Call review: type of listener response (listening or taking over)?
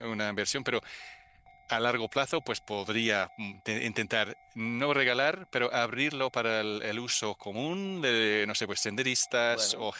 listening